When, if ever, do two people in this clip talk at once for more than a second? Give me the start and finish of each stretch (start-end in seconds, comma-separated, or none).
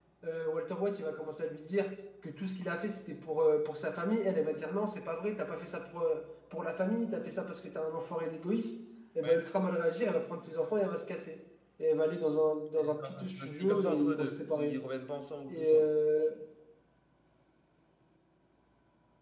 12.8-14.8